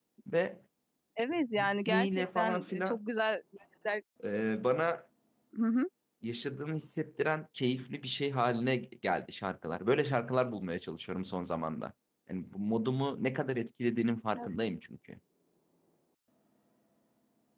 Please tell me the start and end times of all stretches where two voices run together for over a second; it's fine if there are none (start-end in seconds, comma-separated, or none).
1.6-3.0